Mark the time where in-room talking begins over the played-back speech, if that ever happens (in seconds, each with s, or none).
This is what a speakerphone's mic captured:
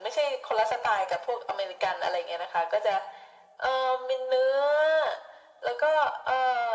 none